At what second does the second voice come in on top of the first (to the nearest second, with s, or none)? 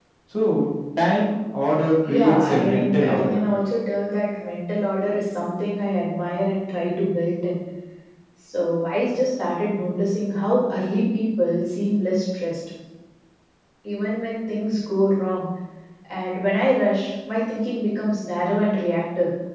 2 s